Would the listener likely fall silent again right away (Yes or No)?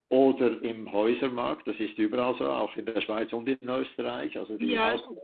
No